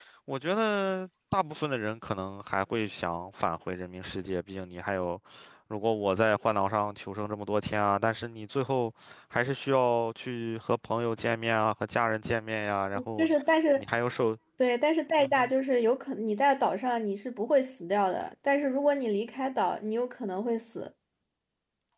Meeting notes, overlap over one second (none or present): none